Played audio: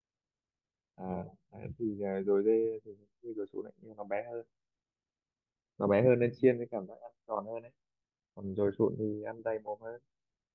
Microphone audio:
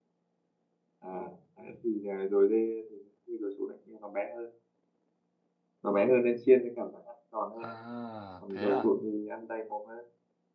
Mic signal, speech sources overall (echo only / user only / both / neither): both